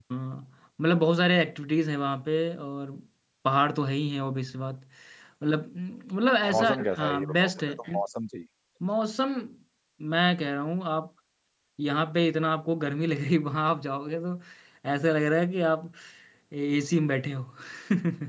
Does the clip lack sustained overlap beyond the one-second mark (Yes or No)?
No